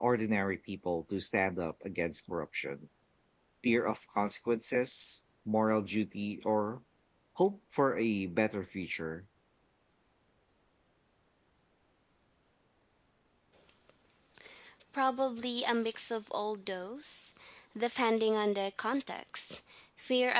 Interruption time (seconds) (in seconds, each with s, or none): none